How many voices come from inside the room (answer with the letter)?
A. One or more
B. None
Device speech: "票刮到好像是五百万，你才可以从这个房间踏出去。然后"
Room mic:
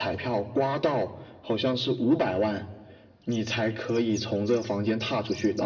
B